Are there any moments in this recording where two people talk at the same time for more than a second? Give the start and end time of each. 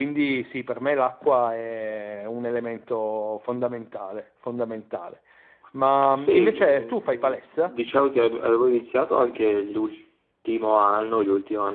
6.1-7.7

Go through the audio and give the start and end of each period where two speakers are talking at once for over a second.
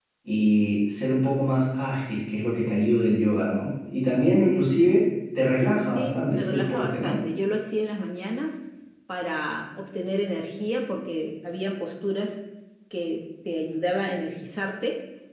6.0-7.2

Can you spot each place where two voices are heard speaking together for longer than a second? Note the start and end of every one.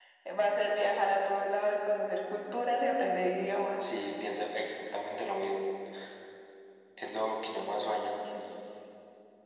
none

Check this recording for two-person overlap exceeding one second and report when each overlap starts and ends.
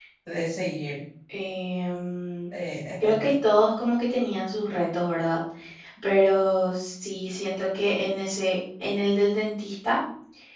none

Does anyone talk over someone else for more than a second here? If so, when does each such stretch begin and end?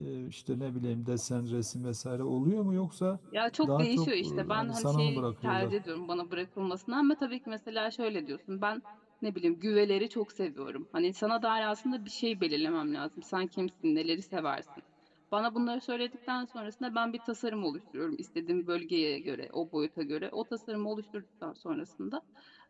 3.6-5.7

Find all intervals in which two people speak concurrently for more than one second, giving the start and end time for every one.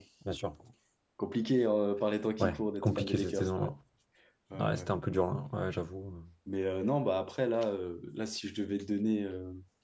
2.4-3.7

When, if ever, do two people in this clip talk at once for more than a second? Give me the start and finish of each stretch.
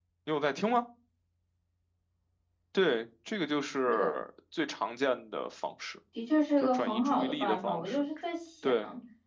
6.6-8.0

